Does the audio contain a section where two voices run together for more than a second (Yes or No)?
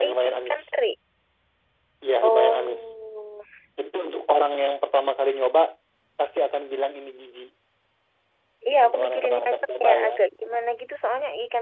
Yes